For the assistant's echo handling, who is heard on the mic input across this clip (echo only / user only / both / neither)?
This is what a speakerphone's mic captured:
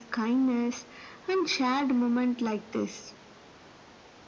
echo only